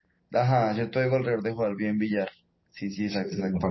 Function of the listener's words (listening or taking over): taking over